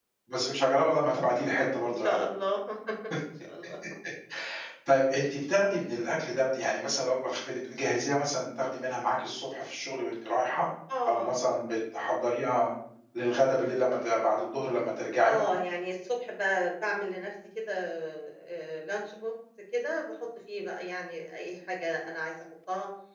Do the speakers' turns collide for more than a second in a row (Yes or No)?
No